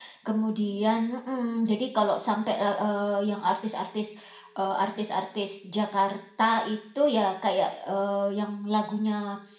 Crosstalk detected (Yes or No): No